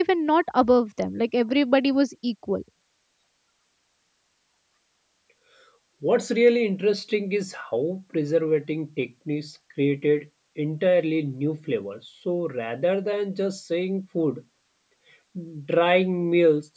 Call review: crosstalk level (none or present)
none